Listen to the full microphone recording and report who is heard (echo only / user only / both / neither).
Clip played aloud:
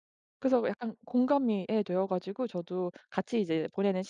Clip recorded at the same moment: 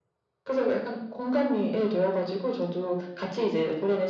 echo only